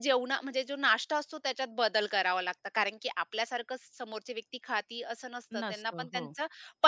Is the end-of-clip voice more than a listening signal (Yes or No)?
No